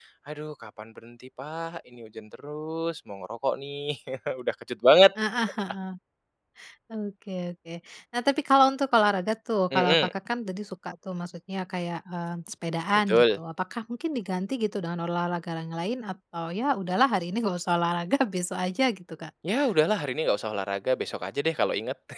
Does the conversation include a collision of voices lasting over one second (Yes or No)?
No